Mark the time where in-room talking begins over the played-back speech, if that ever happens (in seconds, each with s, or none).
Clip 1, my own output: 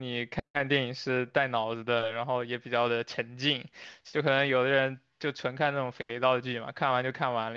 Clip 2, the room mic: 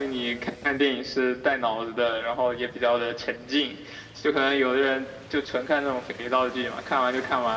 none